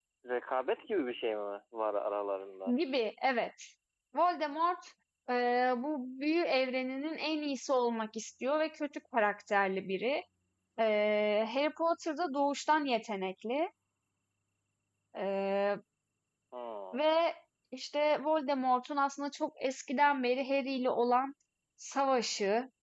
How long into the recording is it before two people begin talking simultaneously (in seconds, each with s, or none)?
none